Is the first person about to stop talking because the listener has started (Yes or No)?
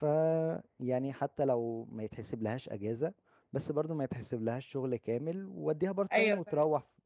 No